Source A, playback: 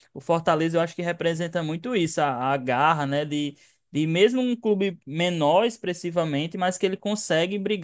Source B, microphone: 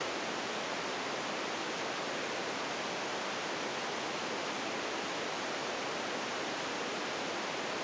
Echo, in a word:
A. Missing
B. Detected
A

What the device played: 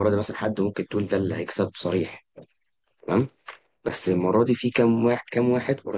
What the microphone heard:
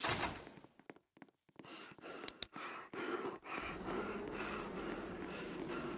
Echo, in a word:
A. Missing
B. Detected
A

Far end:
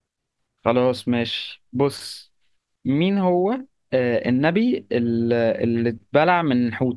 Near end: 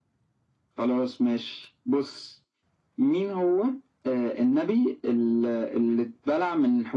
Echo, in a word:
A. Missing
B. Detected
B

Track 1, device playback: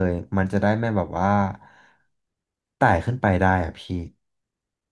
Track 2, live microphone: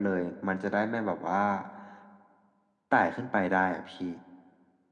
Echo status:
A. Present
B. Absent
A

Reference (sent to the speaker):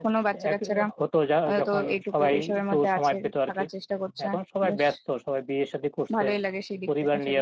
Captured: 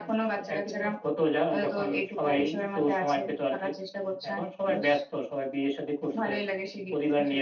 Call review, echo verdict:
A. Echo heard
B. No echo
A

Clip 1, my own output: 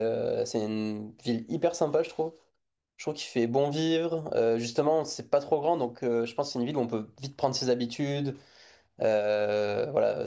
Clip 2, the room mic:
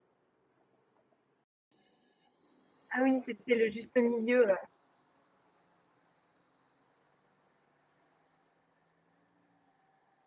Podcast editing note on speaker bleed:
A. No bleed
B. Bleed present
A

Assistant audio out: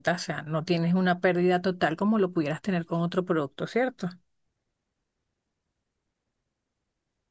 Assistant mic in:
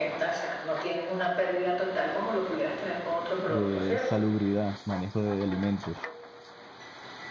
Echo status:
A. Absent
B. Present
B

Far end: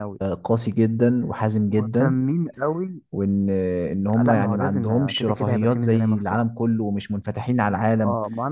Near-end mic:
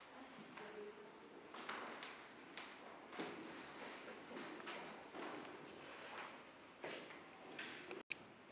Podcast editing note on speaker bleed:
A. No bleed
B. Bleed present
A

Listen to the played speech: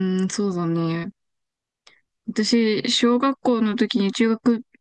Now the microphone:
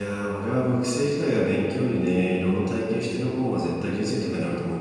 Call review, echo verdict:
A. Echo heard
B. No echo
B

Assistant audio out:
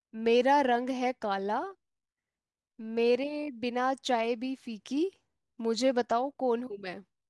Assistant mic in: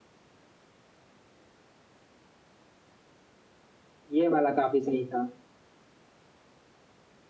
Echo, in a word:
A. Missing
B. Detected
A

